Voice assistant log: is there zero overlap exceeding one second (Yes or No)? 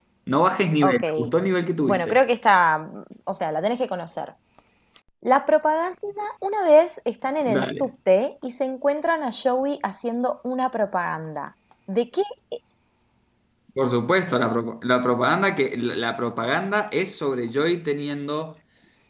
Yes